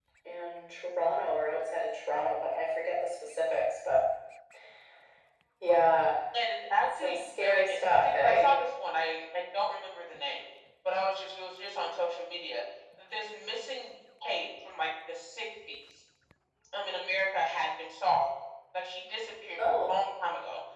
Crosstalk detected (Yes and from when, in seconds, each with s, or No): Yes, from 7.0 s